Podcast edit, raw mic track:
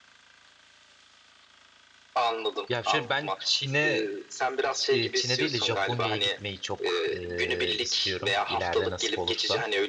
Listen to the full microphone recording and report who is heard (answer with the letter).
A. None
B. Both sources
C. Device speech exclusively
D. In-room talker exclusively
B